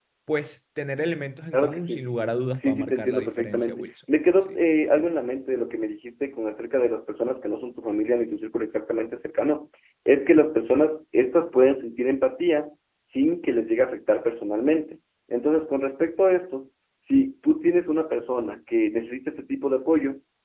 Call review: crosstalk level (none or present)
present